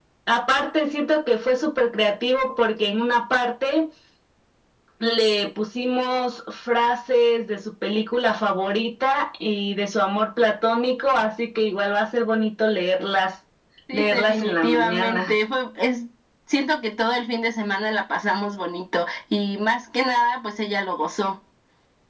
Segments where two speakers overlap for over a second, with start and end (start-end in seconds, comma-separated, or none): 13.9-15.3